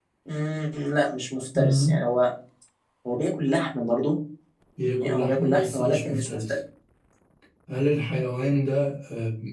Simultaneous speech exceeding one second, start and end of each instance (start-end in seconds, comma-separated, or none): 5.0-6.6